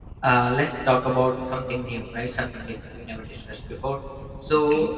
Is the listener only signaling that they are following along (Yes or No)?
Yes